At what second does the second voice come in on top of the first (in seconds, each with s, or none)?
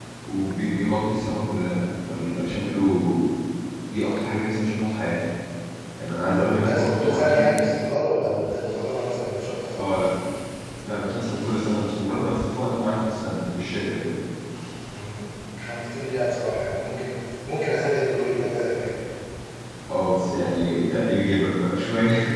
6.3 s